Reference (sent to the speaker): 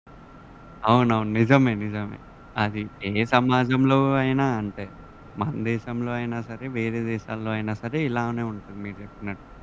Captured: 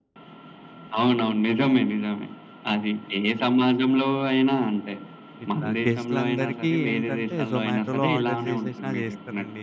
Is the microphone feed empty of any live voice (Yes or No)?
No